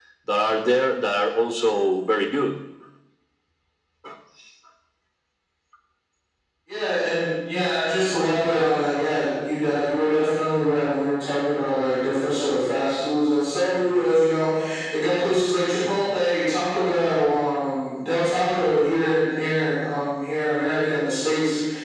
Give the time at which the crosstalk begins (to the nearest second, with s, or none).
none